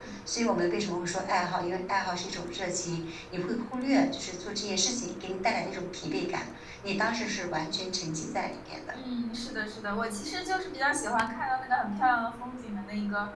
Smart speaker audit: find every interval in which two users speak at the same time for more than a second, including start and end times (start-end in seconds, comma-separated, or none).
none